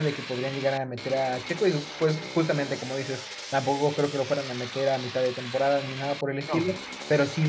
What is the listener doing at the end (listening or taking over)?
listening